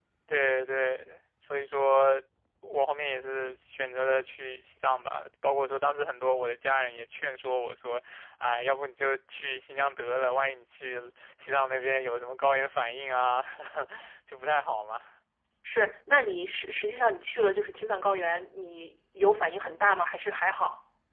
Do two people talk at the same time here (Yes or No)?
No